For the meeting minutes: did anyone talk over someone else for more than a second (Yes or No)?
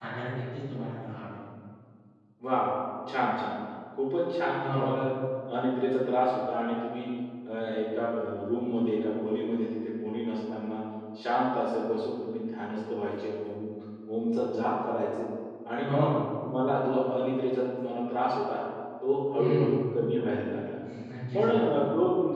No